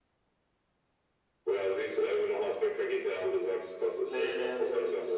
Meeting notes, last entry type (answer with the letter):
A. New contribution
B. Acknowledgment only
A